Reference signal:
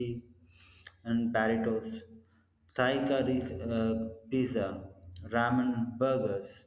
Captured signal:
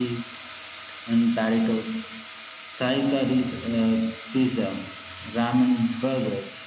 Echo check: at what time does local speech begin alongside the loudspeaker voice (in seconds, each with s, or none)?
none